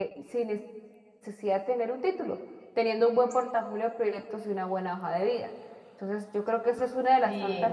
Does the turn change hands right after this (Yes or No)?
No